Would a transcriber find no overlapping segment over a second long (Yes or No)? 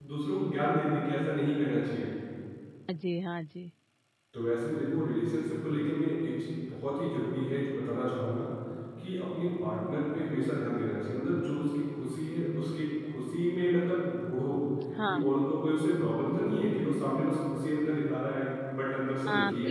Yes